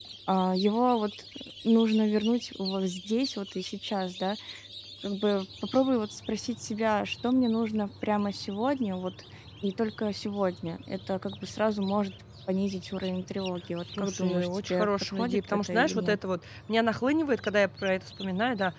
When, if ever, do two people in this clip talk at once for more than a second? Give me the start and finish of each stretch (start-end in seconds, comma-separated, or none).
14.0-16.2